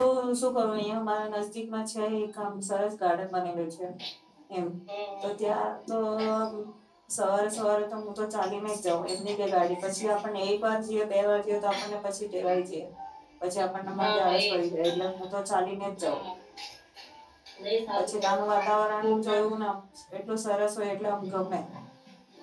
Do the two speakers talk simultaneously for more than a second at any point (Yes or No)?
Yes